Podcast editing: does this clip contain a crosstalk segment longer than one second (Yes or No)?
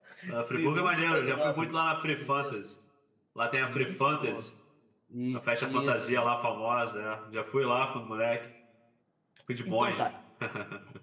Yes